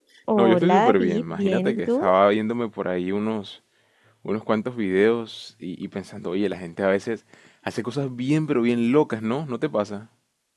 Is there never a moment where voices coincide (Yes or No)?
No